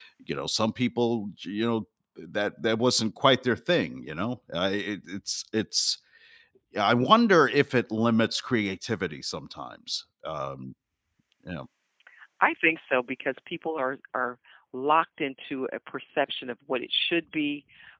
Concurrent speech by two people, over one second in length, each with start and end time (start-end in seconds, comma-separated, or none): none